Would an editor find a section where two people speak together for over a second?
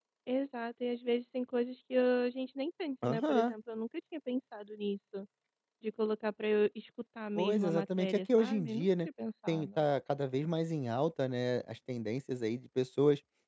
Yes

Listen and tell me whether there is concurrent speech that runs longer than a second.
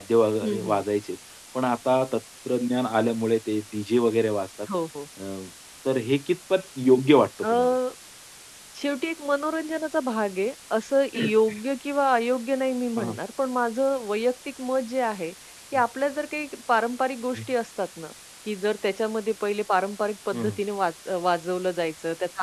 No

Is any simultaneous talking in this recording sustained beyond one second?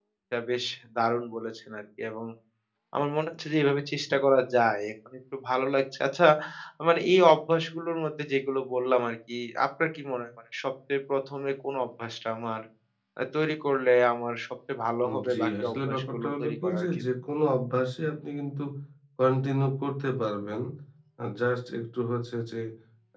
Yes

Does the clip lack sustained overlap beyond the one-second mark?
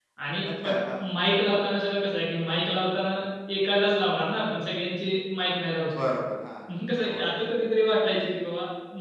Yes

